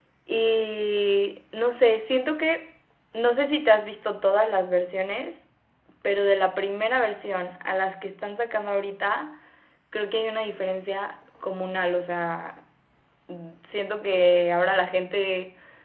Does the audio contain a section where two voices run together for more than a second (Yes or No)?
No